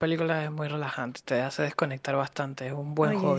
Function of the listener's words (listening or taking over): taking over